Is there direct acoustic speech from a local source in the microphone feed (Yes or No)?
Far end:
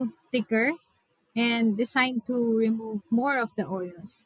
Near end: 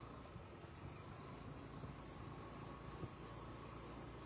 No